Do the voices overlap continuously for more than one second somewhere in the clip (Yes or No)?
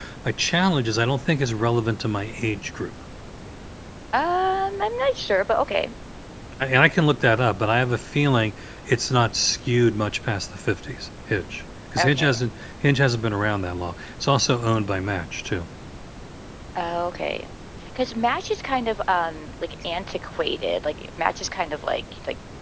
No